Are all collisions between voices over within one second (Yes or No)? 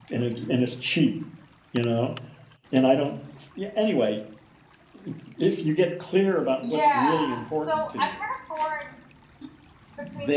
No